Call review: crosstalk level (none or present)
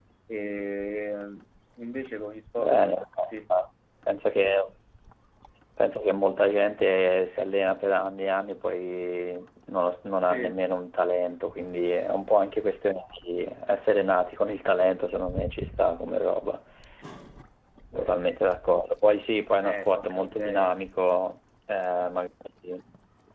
present